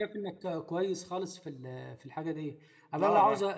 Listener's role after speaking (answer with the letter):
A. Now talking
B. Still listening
B